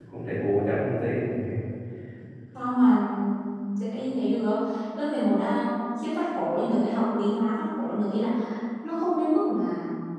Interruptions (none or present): none